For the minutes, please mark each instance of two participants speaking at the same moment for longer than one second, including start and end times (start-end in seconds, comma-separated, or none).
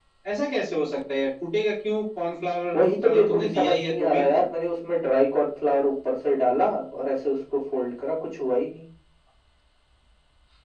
2.7-4.2